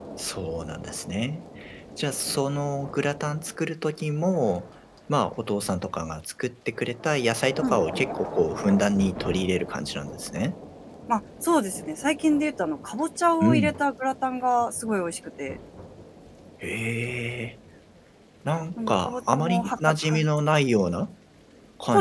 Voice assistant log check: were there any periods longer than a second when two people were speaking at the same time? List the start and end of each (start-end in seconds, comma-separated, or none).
18.8-20.2